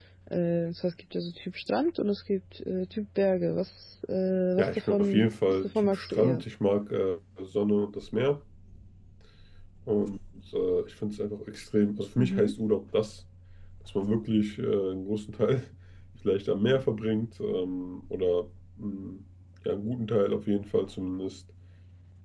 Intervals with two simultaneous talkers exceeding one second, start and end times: 4.6-6.4

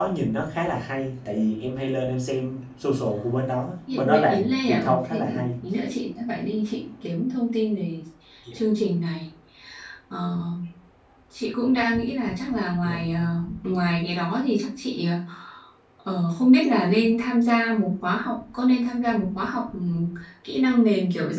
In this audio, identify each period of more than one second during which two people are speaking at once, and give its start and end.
3.9-5.4

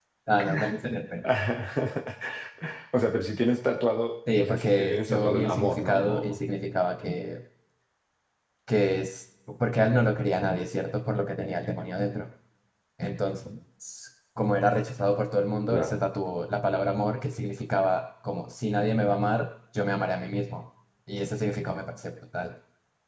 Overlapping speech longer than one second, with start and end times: 4.4-6.4

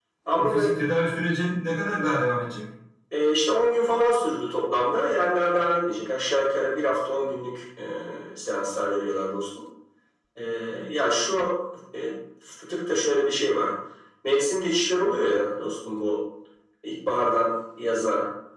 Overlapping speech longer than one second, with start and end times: none

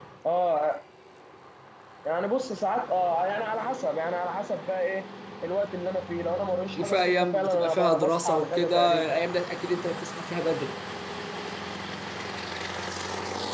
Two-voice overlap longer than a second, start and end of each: 6.8-9.2

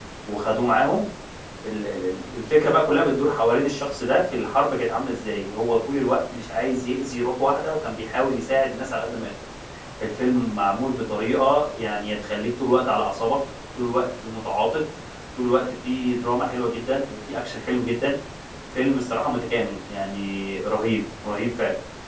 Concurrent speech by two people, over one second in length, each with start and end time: none

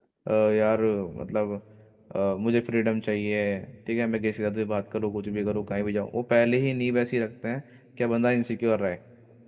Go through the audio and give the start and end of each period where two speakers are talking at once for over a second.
none

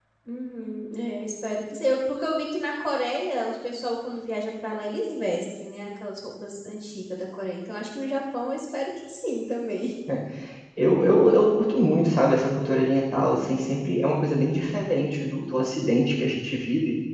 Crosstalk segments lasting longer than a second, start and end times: none

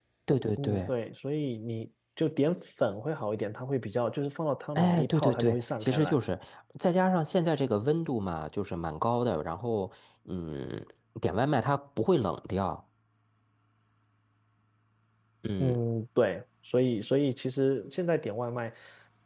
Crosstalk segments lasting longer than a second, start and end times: 4.8-6.2

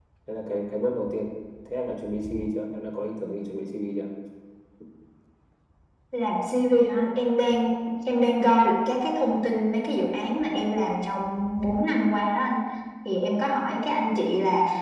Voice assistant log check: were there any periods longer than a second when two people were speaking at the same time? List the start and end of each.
none

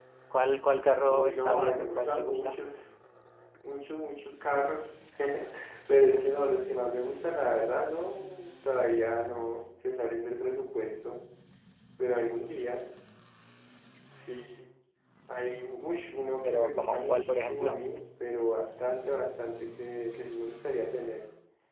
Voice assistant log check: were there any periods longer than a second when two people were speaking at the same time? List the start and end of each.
1.0-2.6, 16.4-17.8

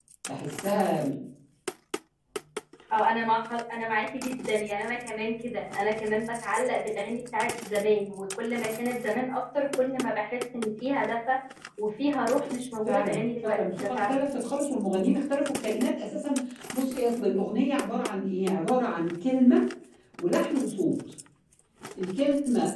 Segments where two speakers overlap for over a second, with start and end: 12.8-14.2

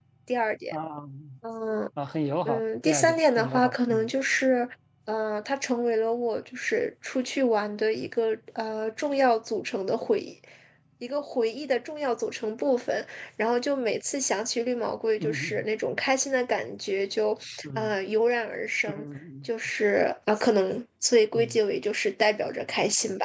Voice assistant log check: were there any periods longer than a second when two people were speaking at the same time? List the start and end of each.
2.4-4.1

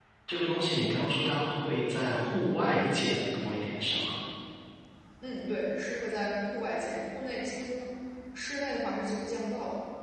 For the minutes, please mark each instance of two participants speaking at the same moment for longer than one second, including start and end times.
none

